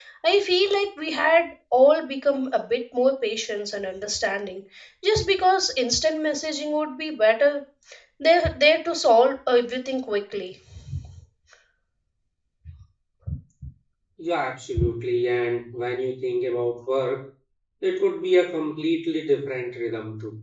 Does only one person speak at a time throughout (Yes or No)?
Yes